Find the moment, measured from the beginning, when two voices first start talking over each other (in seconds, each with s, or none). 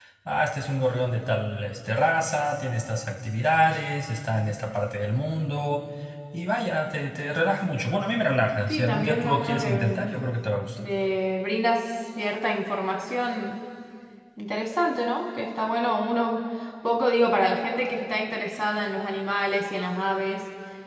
8.7 s